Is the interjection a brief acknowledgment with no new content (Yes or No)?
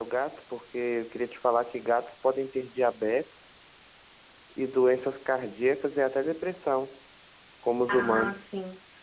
No